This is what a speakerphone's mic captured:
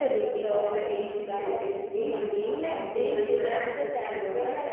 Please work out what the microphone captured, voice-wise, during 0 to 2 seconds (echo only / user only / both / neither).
both